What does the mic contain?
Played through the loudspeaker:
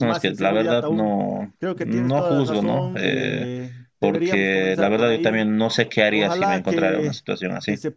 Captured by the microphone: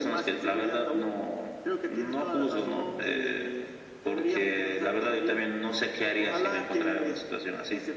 echo only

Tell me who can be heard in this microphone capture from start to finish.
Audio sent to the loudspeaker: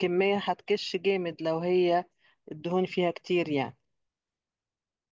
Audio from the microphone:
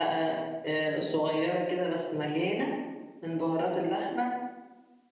user only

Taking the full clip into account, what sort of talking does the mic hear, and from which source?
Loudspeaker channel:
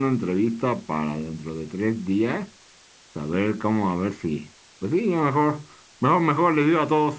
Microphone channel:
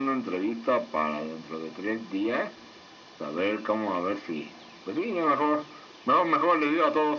echo only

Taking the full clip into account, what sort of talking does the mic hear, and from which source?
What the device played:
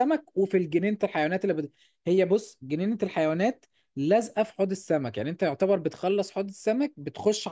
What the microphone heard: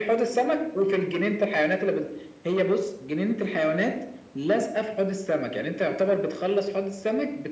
echo only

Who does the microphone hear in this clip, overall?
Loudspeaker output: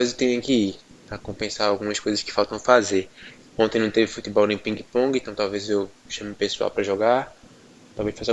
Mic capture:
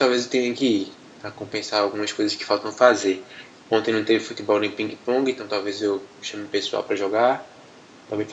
echo only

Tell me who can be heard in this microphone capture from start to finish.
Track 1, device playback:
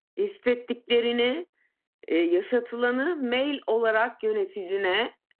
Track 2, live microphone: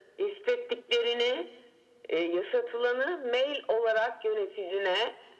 echo only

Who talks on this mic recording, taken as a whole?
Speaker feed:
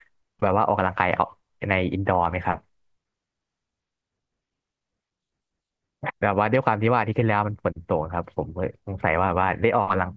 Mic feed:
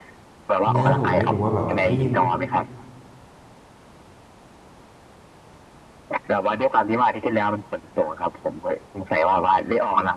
both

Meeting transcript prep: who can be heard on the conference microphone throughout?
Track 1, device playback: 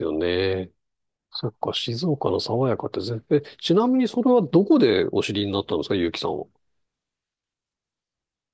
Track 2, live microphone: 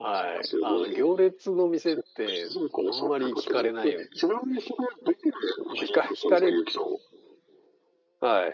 both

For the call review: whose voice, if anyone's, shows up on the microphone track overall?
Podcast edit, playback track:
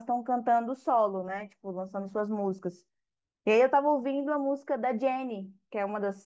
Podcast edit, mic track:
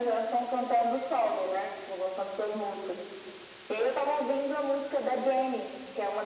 echo only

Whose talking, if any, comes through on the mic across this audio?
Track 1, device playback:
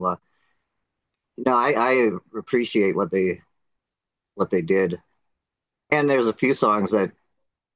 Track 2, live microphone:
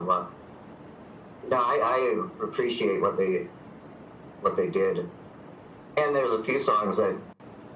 echo only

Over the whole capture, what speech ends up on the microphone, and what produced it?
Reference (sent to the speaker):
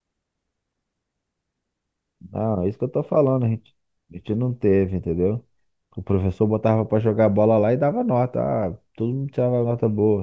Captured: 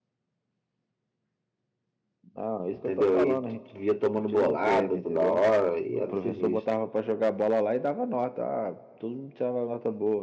both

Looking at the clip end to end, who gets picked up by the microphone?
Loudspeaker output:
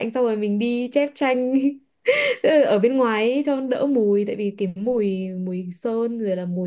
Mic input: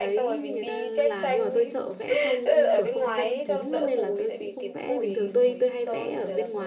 both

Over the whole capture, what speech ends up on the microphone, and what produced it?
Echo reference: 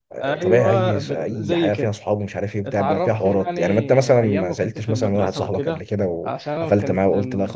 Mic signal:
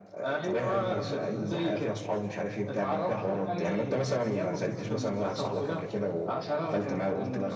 echo only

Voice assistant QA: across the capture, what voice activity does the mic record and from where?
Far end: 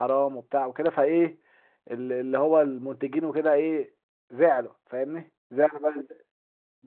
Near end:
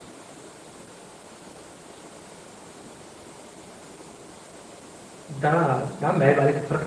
user only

